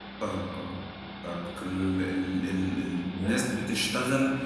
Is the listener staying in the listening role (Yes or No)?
Yes